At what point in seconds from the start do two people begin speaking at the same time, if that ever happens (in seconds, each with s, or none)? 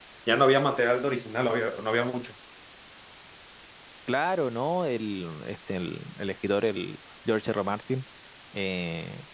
none